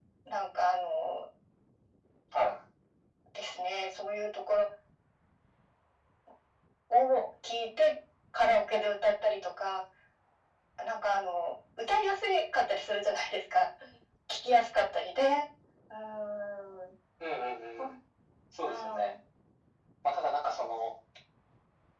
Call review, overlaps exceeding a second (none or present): none